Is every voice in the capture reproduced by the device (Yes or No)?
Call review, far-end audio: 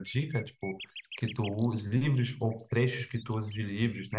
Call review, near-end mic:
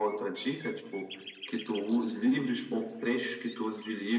Yes